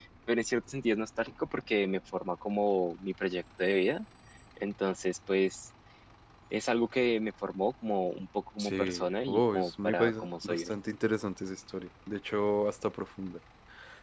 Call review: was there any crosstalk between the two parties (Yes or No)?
Yes